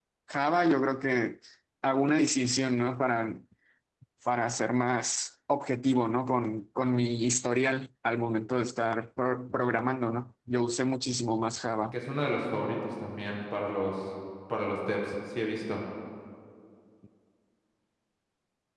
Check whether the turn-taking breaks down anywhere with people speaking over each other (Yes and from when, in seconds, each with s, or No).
No